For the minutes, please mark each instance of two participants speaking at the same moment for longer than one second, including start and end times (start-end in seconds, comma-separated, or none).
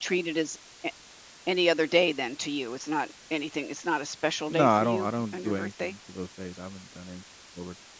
4.5-6.0